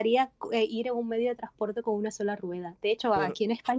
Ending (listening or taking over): listening